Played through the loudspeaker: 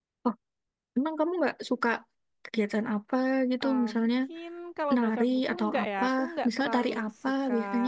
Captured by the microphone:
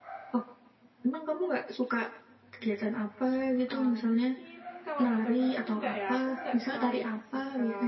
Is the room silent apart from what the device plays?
Yes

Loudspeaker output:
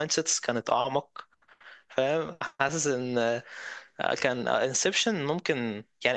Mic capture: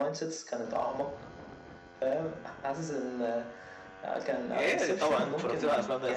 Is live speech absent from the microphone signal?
No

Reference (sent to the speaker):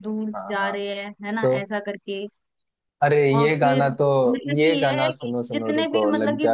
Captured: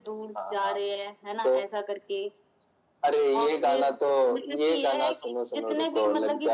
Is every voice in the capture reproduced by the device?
Yes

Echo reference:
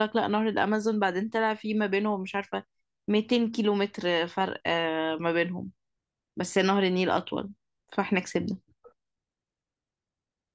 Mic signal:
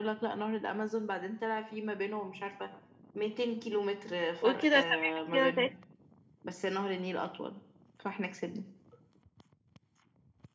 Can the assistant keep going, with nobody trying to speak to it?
No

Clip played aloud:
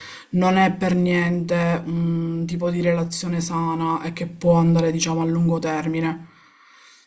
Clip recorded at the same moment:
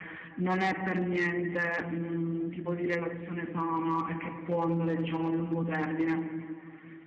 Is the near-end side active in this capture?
No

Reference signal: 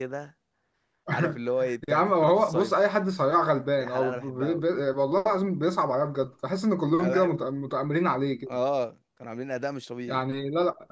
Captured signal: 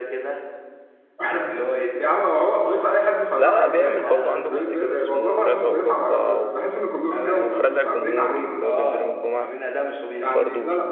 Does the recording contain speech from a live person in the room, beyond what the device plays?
Yes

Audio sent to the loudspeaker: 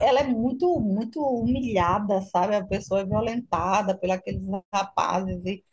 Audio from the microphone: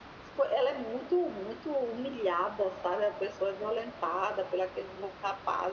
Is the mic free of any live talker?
Yes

